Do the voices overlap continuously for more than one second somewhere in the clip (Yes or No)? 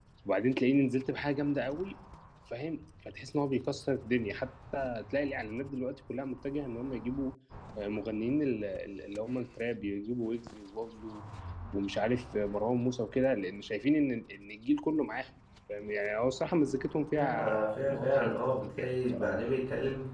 Yes